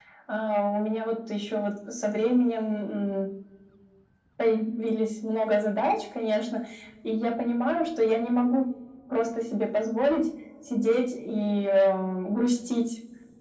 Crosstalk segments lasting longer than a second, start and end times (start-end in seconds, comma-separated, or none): none